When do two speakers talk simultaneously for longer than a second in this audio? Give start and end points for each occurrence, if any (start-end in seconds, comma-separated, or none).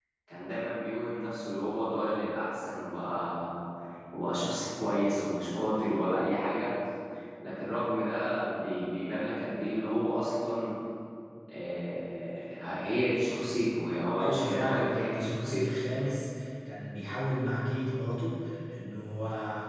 14.2-15.7